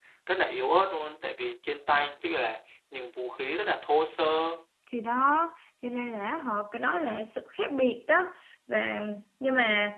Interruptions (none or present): none